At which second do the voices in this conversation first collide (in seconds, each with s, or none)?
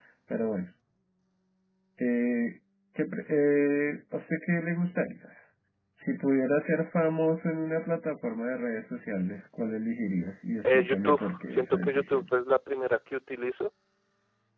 10.6 s